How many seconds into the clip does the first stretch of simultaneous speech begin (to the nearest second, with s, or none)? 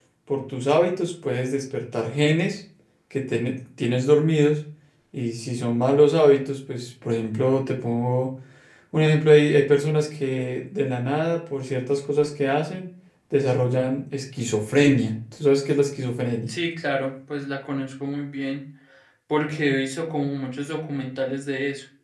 none